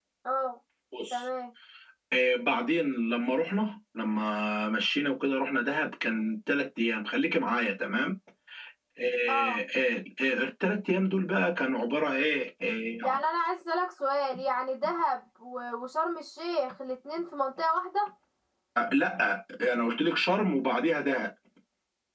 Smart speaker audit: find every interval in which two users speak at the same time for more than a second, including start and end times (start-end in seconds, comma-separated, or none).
none